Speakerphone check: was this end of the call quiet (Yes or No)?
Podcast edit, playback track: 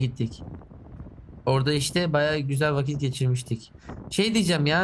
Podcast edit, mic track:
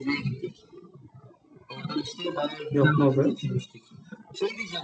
No